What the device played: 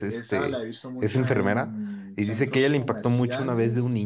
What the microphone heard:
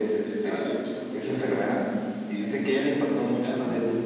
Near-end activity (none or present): none